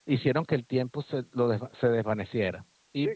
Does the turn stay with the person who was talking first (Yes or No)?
No